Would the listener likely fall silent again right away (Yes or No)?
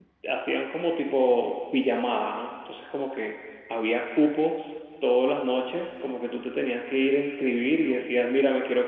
Yes